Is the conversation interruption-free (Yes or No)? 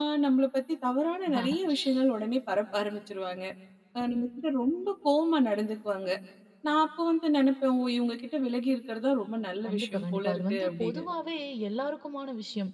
No